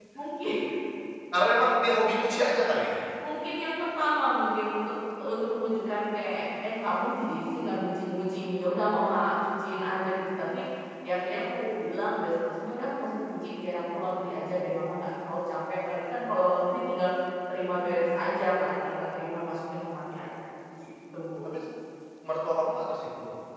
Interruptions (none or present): none